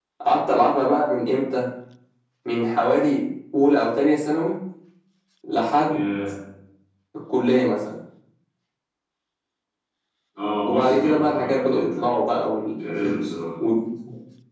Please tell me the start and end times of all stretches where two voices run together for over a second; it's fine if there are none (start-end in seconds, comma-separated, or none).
10.6-12.0